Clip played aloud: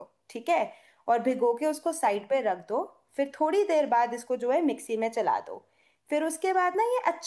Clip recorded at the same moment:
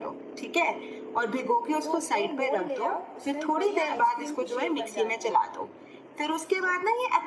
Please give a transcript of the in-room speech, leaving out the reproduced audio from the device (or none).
तो वो मोल्ड ले आओ उसमें बढ़िया आइसक्रीम की शेप बन जाती है